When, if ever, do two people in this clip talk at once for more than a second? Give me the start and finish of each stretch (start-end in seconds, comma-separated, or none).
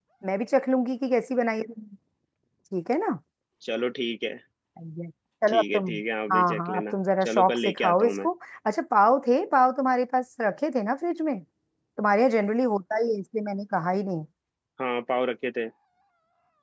6.3-8.3